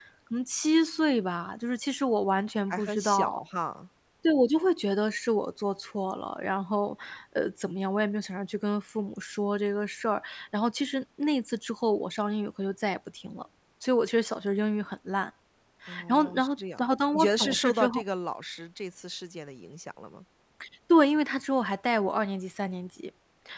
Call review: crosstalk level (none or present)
present